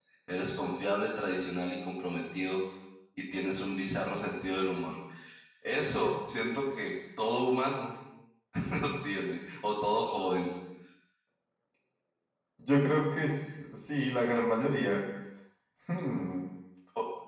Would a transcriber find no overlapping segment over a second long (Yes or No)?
Yes